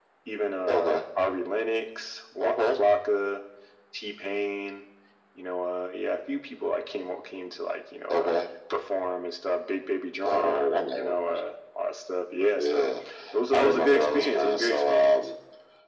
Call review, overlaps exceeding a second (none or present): present